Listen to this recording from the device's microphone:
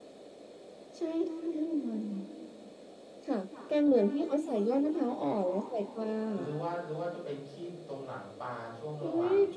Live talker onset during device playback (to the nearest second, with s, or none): 6 s